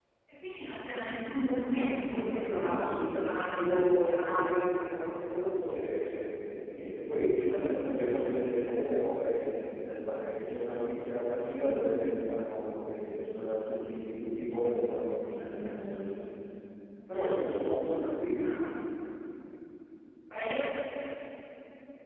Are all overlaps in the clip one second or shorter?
No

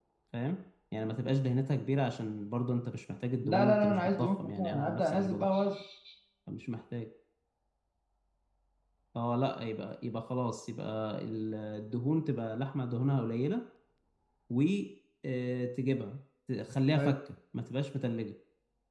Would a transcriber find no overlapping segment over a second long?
No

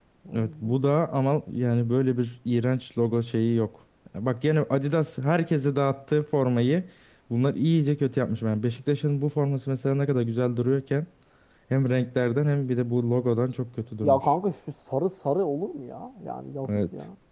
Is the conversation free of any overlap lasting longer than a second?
Yes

